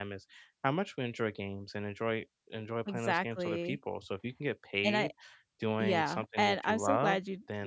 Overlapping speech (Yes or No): Yes